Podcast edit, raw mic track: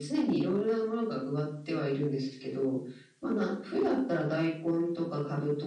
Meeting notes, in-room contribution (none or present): none